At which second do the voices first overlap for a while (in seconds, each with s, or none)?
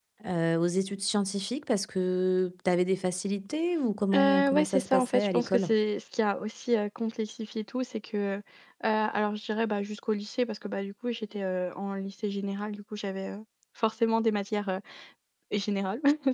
4.1 s